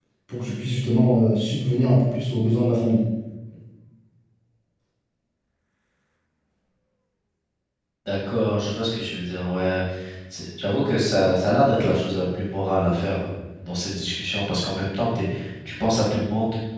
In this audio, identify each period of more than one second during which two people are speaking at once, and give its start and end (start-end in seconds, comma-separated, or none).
none